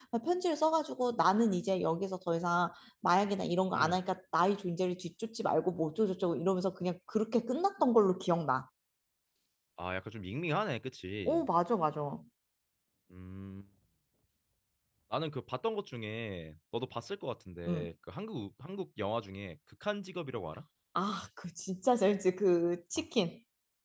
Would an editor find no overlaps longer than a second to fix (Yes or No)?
Yes